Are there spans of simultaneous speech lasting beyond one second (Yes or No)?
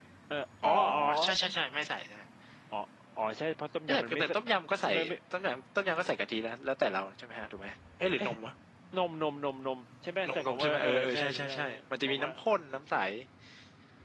Yes